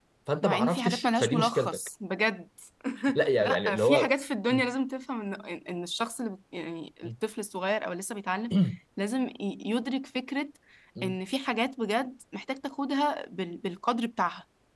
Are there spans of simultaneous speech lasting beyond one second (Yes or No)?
Yes